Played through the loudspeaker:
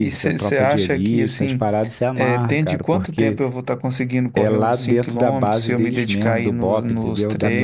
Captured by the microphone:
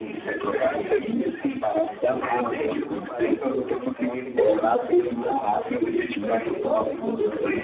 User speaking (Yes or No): Yes